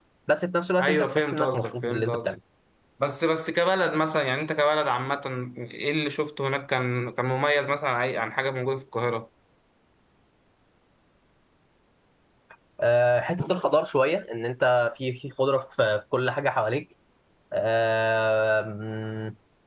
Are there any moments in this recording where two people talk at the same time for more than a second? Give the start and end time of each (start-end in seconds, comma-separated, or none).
0.8-2.3